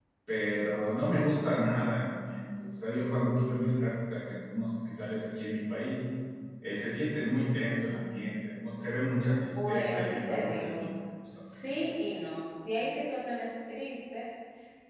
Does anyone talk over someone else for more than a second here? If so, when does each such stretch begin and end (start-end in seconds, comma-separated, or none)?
9.4-10.9